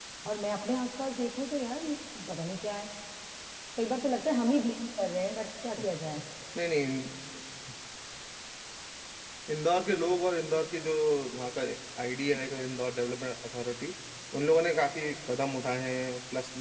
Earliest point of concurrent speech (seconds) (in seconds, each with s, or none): none